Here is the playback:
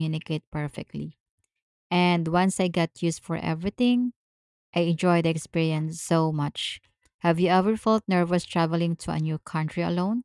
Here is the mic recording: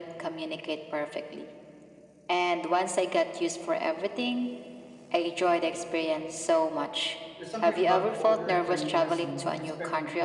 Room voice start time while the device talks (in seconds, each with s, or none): 7.3 s